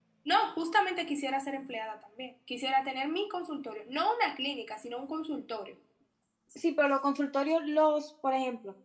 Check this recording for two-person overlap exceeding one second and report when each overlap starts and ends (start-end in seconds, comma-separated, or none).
none